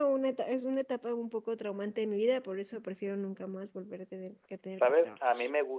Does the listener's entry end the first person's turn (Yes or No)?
Yes